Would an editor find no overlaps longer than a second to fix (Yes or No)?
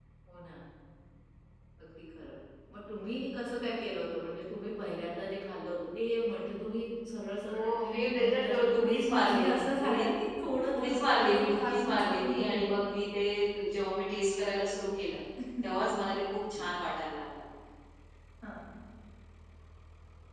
No